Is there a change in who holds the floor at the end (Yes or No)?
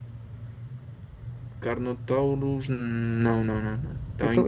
Yes